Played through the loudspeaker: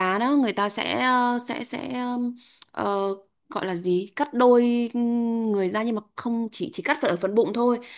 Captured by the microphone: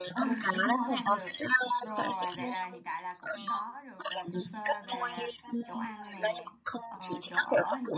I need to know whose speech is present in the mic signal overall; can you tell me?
both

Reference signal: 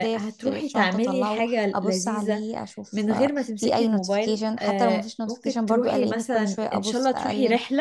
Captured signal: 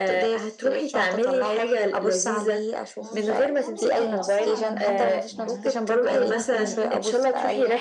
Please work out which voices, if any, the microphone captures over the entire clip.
both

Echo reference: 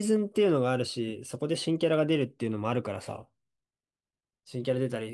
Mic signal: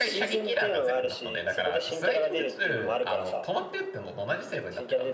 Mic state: both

